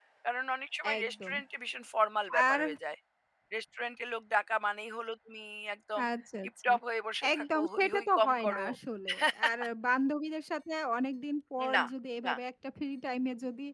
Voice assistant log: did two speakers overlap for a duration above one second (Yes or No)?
Yes